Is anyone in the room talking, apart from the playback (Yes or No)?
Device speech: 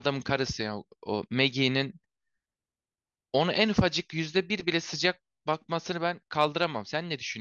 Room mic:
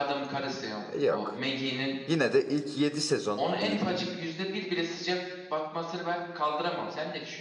Yes